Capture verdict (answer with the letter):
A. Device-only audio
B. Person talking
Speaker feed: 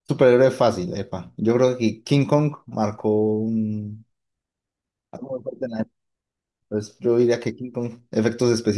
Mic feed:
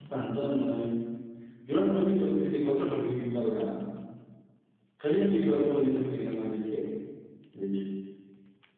B